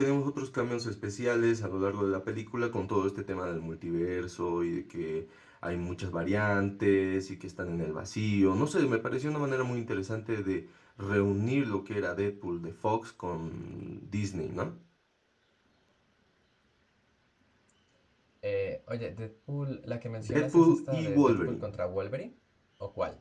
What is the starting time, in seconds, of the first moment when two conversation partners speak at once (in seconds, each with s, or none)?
20.2 s